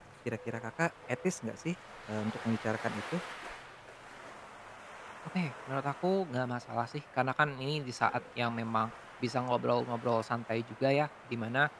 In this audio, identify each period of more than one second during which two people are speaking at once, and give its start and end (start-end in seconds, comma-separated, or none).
none